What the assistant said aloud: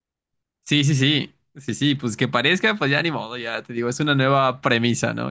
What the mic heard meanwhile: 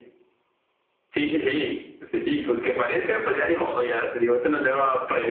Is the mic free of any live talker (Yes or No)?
Yes